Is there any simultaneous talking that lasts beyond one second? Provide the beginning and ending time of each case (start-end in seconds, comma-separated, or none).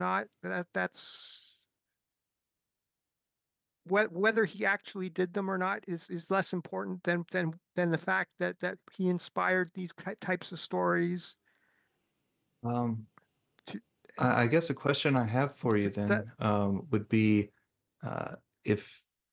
none